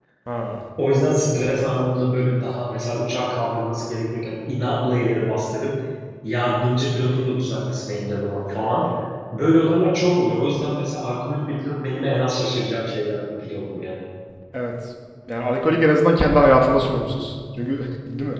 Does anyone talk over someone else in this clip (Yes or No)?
No